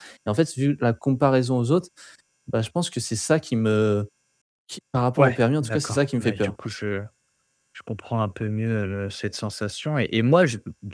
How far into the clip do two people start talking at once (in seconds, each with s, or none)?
5.2 s